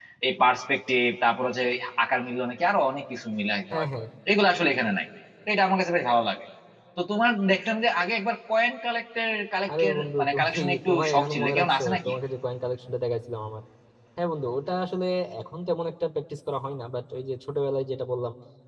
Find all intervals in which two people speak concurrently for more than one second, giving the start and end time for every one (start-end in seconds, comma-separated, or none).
9.7-12.1